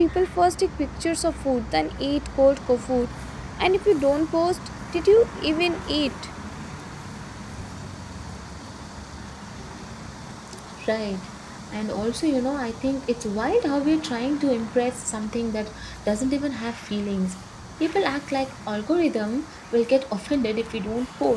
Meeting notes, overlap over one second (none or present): none